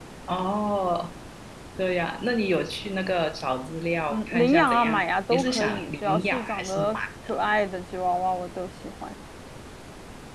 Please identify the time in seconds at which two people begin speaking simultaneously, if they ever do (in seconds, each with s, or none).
4.1 s